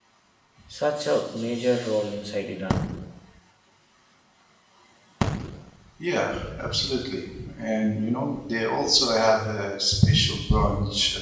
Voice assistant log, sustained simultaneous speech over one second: none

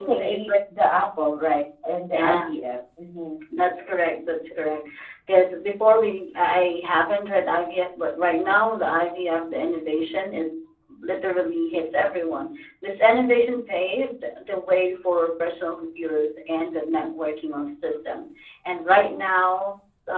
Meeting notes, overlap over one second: none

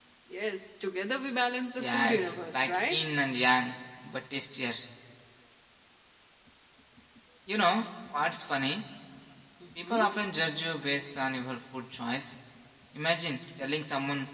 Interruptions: present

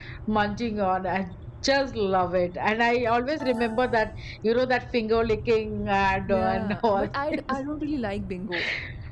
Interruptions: present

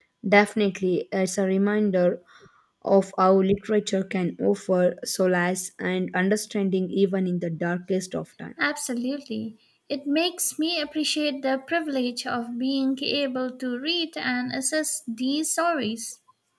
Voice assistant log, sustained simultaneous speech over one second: none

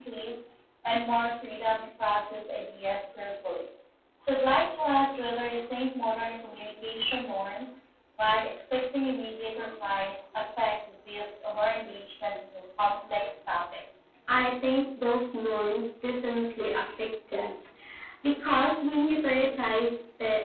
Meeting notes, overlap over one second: none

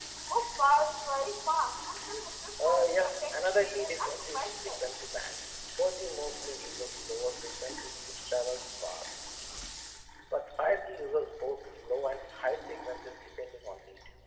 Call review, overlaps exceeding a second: present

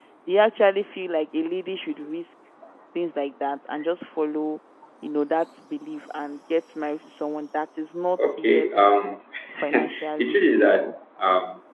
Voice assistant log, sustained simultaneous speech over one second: present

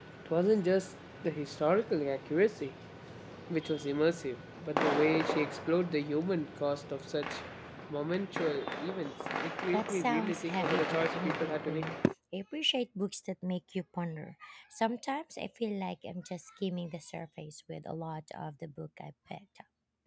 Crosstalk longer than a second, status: present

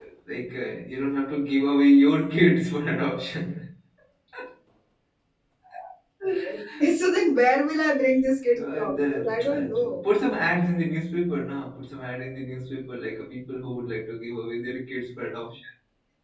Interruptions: present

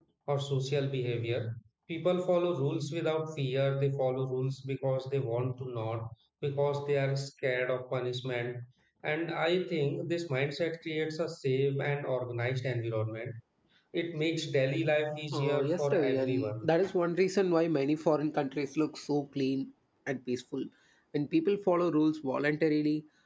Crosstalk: present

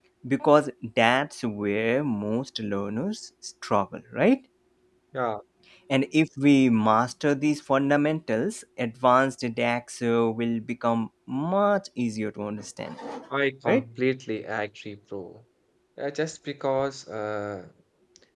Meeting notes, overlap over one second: none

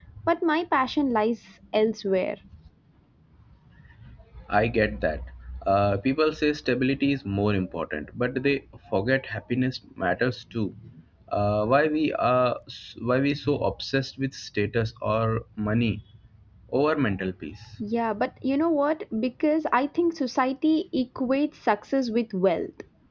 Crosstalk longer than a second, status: none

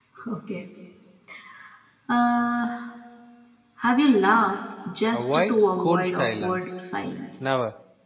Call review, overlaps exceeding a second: present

